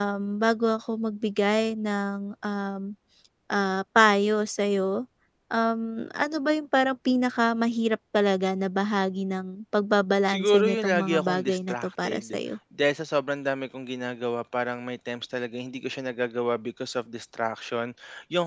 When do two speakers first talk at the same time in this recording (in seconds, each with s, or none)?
10.3 s